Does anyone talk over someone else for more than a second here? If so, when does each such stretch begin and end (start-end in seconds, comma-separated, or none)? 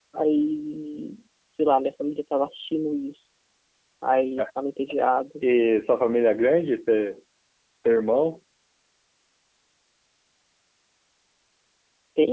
none